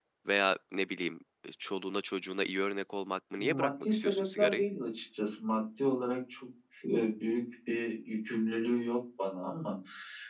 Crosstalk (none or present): present